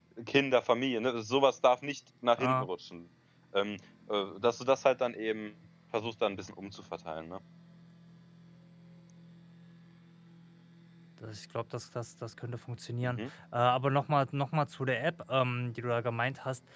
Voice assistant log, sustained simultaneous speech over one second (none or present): none